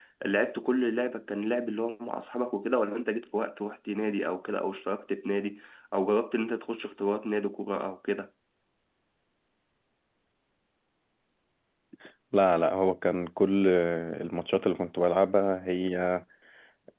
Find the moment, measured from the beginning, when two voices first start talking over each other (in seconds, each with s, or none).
none